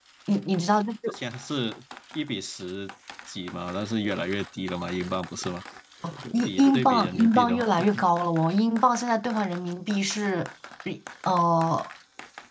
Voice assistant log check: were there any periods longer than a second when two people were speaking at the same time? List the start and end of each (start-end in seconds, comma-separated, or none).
6.3-7.8